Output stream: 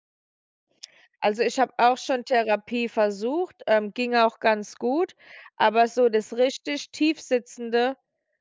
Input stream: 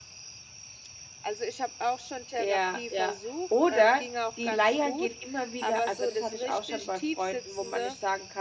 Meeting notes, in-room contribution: present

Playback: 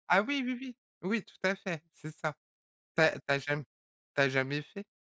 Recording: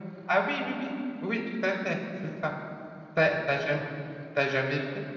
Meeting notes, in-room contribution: none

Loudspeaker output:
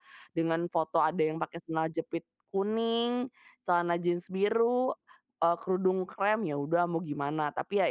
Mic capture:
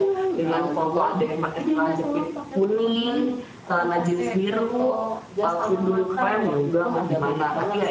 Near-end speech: present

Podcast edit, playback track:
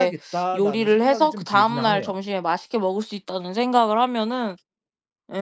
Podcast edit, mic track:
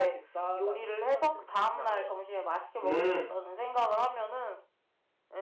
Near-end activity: present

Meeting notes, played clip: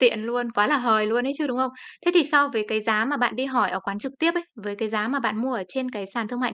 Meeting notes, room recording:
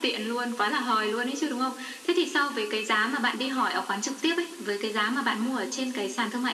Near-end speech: none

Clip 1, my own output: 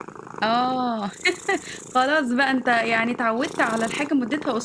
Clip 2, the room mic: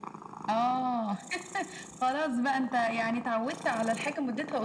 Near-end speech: none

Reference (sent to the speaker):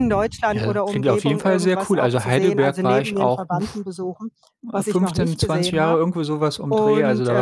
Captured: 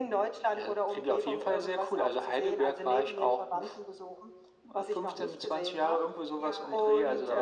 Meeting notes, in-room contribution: present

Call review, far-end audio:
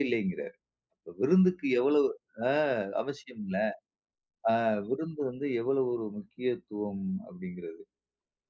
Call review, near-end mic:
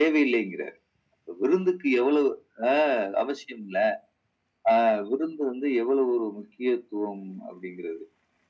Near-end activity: none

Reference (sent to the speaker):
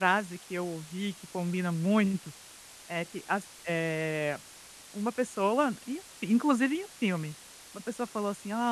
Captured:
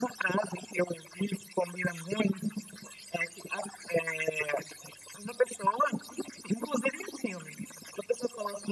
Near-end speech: none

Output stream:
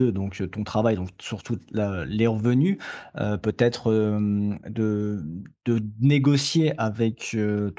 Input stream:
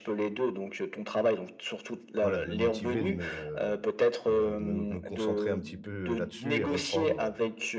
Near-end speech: present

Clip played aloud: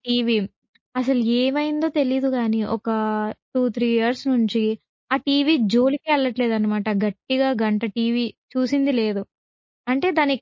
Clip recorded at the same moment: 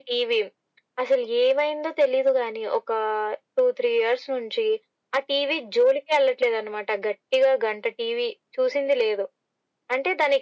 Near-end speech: none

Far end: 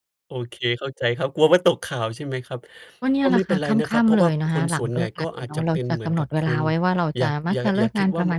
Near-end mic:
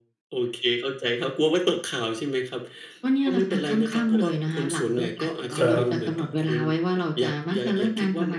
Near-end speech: present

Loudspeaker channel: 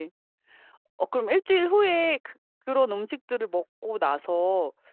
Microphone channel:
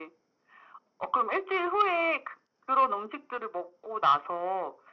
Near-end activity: none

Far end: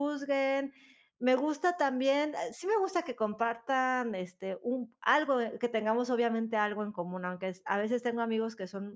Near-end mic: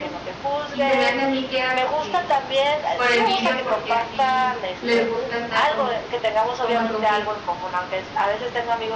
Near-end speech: present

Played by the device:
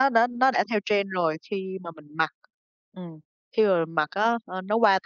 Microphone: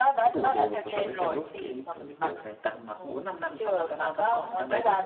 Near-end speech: present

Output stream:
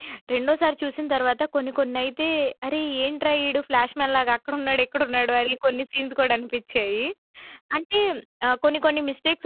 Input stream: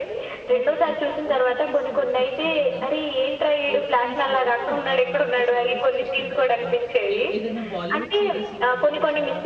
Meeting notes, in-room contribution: present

